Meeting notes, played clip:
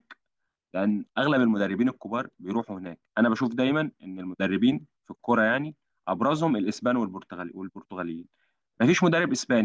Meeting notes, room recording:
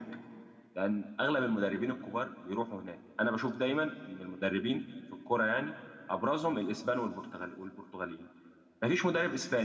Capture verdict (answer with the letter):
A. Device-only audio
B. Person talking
A